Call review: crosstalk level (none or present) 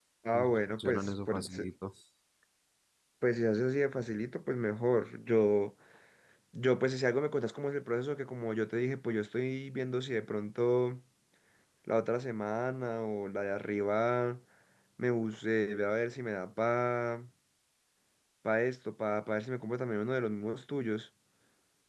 present